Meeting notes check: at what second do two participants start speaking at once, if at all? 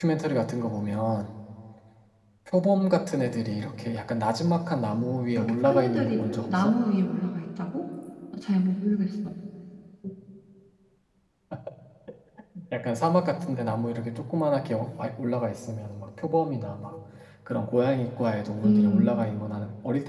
5.4 s

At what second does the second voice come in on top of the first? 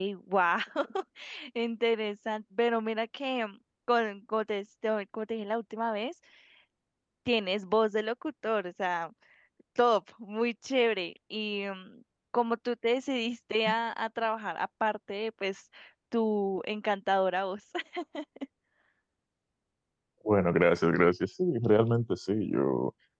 none

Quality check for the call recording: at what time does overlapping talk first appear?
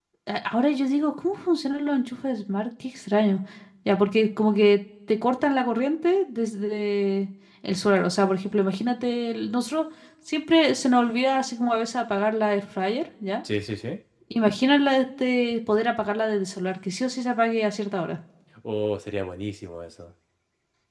none

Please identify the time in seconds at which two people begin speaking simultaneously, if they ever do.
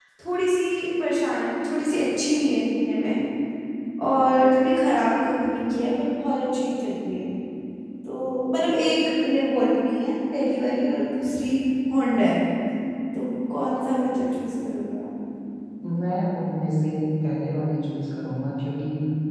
none

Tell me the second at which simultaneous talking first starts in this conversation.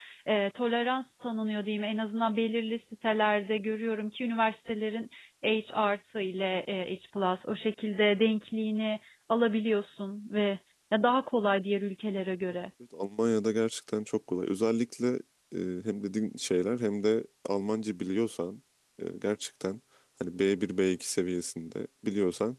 none

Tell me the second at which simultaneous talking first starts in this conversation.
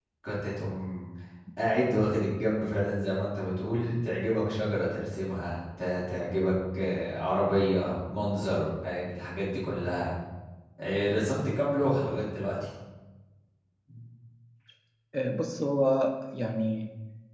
none

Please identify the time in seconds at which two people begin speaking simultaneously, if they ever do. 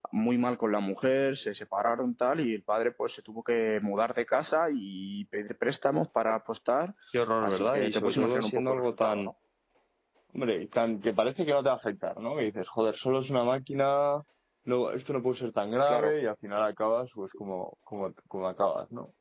7.4 s

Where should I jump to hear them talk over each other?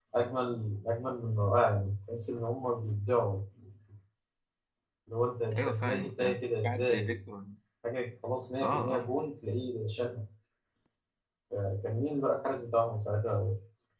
5.6 s

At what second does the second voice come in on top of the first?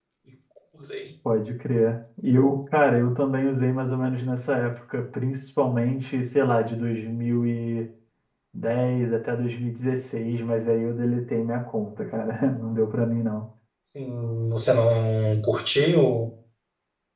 none

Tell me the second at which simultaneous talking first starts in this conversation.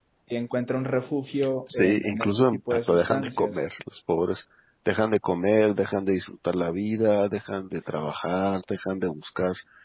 1.7 s

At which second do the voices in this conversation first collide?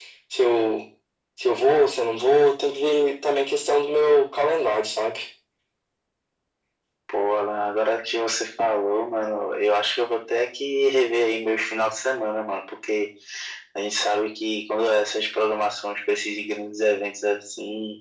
none

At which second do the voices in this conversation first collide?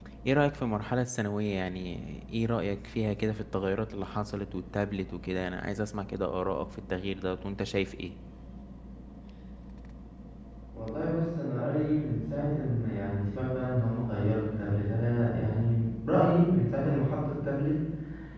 none

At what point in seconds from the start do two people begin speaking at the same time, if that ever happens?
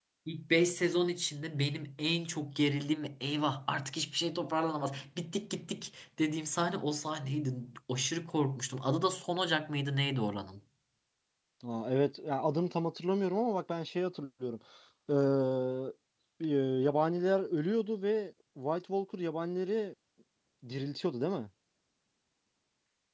none

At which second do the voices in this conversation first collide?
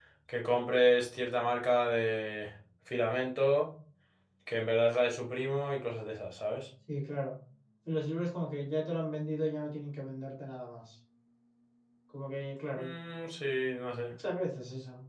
none

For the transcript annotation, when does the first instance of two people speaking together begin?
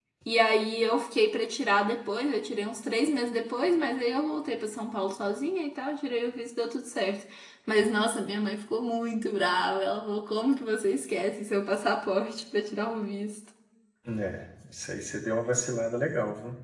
none

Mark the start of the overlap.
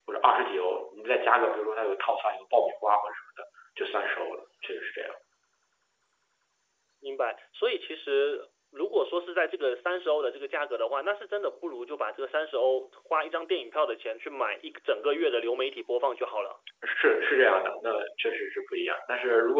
none

